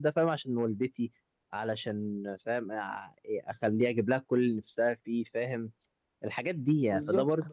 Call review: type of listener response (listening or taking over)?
listening